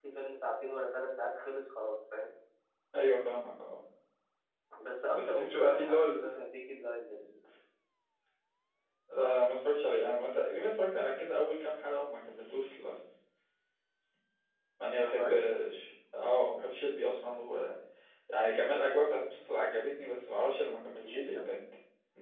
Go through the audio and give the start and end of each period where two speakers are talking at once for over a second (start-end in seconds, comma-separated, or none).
5.1-6.4